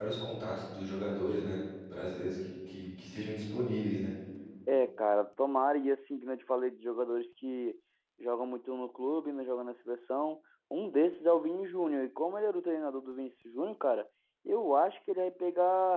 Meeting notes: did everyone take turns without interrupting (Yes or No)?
Yes